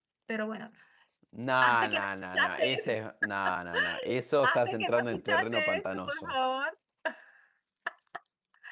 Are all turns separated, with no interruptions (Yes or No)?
No